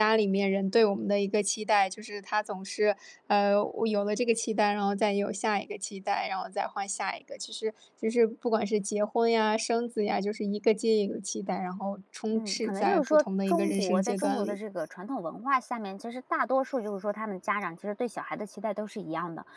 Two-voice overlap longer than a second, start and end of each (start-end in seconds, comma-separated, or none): 12.3-14.6